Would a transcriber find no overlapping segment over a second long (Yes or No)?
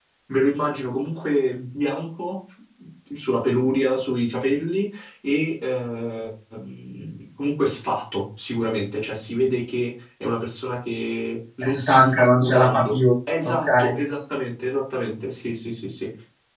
No